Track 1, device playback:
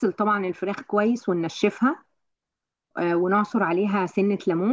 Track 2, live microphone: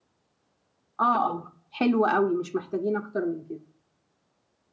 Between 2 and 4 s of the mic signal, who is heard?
user only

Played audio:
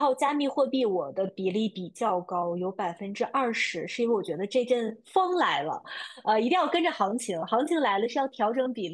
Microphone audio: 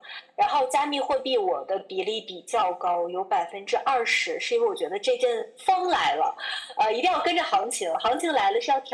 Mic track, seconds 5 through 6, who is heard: echo only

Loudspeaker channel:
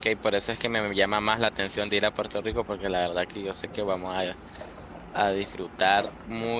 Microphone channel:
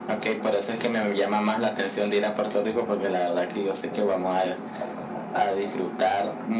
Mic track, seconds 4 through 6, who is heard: echo only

